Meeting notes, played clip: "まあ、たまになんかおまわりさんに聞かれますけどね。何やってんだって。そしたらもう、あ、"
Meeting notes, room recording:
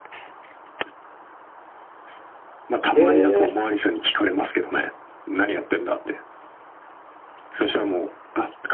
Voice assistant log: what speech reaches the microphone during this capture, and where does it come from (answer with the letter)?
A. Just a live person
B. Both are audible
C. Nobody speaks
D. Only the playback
B